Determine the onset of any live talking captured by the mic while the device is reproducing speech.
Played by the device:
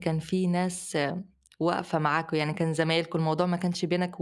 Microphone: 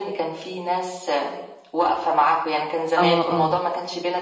3 s

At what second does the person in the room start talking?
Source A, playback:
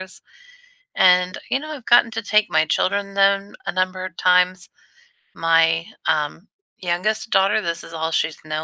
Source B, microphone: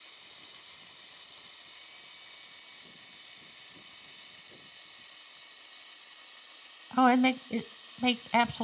7 s

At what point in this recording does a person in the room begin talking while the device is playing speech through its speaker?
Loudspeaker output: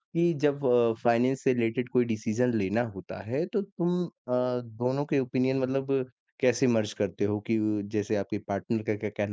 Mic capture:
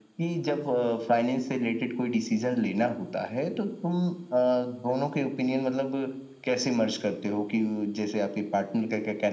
none

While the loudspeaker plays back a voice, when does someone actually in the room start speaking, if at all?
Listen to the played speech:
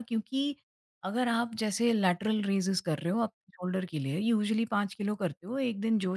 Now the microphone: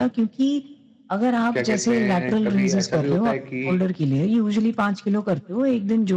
2 s

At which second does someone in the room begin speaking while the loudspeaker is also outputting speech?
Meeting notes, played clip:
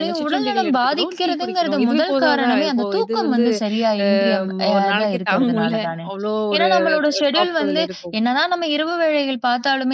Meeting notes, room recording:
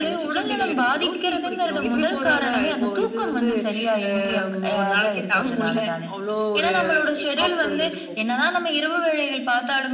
none

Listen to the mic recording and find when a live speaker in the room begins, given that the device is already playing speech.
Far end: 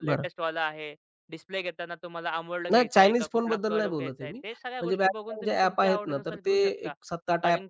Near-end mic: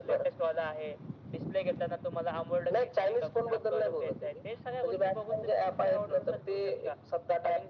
none

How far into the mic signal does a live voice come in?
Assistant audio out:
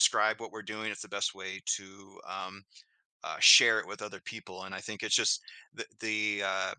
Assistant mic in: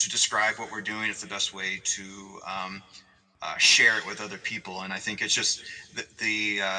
none

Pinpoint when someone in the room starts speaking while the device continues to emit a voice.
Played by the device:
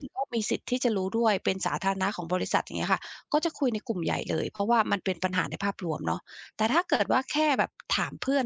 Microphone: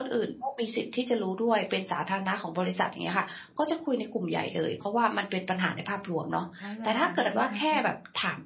6 s

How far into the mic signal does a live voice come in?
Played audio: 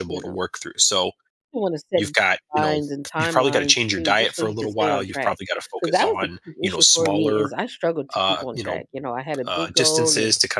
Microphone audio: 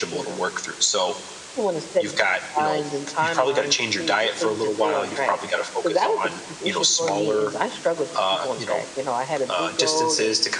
none

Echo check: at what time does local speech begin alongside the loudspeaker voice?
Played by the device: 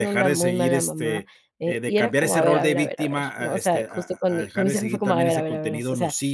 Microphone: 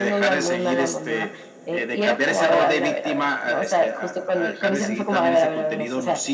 none

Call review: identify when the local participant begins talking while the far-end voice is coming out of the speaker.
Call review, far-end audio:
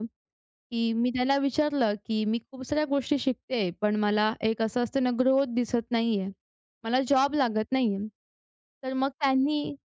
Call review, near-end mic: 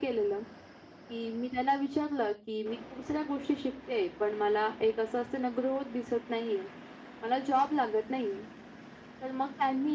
none

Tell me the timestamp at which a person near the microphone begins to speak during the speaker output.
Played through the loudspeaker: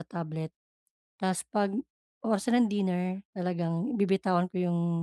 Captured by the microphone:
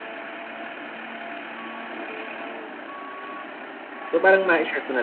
4 s

